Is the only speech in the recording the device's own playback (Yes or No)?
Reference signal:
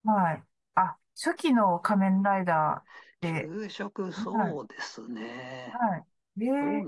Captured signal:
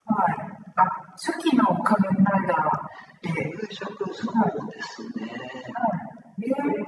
Yes